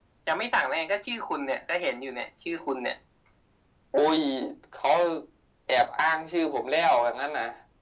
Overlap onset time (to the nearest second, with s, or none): none